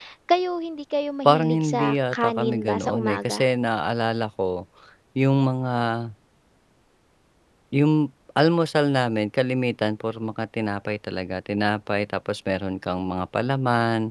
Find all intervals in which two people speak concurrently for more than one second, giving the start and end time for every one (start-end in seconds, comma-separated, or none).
1.2-3.5